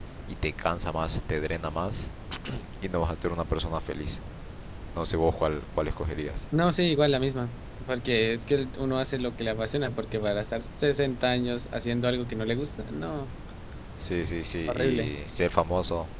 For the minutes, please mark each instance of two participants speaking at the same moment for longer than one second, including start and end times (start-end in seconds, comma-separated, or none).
none